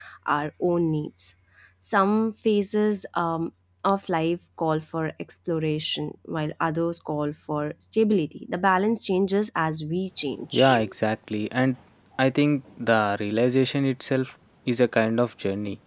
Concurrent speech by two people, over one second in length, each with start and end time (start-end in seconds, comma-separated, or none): none